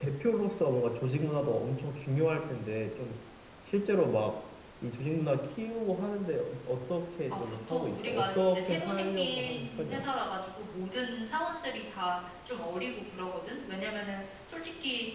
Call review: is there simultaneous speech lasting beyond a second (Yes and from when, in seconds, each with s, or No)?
Yes, from 7.3 s